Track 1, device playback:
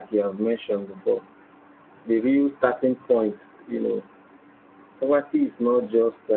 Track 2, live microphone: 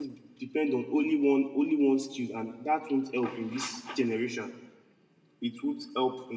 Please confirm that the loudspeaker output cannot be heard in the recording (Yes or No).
Yes